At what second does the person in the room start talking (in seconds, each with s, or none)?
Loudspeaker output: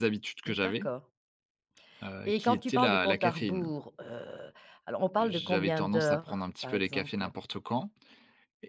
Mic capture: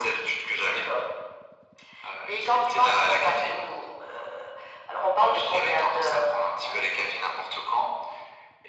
none